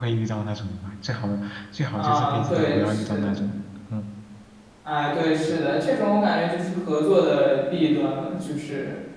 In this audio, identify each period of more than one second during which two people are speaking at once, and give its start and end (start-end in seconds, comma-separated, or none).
2.0-3.4